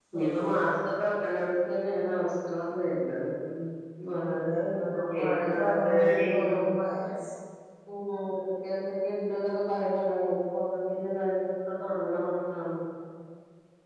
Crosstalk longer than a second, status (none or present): present